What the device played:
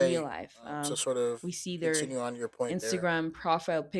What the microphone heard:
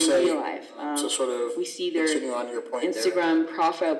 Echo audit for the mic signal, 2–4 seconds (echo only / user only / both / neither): echo only